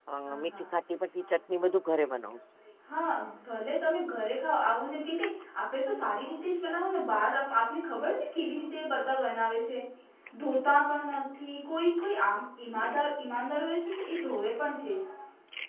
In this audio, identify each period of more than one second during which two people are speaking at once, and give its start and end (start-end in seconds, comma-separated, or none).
none